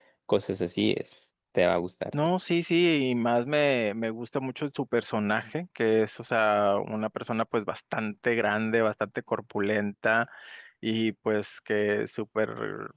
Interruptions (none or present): none